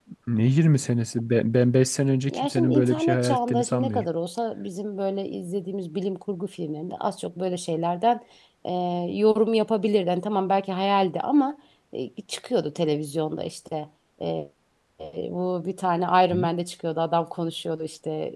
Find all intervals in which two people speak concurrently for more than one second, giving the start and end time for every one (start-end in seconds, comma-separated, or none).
2.3-4.1